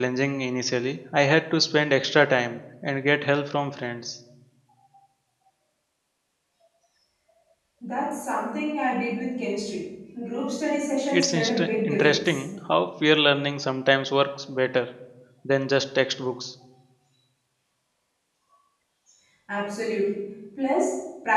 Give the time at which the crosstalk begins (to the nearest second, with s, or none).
11 s